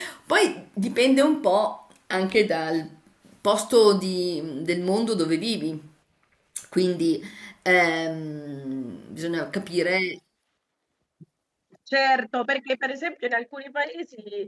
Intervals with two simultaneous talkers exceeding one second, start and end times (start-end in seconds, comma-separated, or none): none